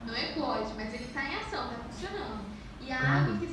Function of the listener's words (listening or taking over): listening